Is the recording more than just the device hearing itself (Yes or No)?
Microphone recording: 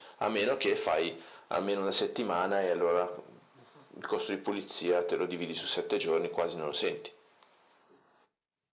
No